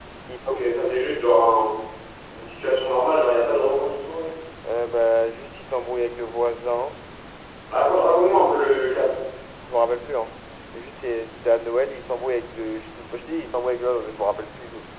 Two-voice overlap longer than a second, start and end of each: none

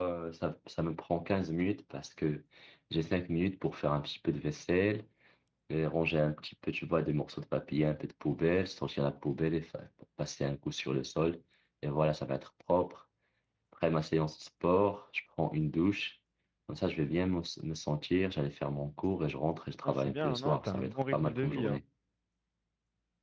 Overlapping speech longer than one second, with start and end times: 19.9-21.8

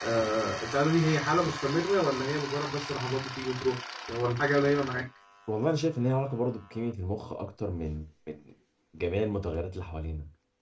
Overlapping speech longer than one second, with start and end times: none

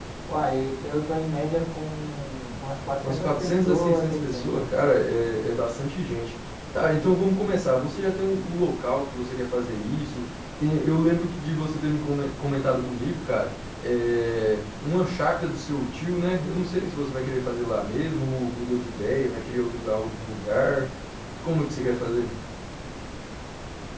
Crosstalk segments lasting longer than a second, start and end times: 3.0-4.7

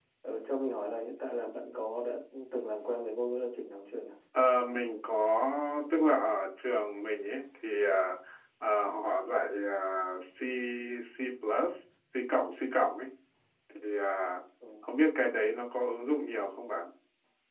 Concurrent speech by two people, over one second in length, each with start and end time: none

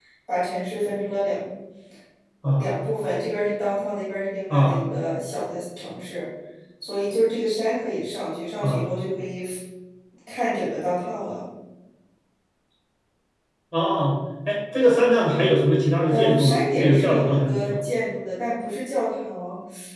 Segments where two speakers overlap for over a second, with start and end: 16.1-17.8

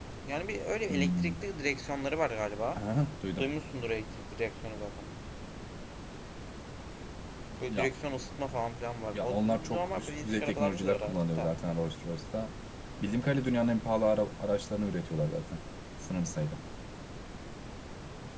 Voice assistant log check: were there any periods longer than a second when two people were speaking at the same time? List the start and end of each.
9.1-11.5

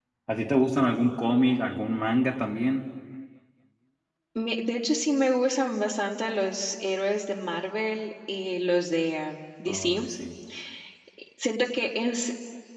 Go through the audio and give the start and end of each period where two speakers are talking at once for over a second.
none

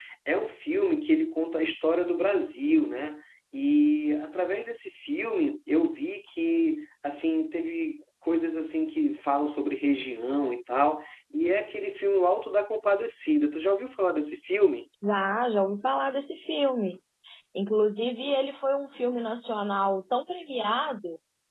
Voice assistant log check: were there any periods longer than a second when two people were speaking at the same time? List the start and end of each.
none

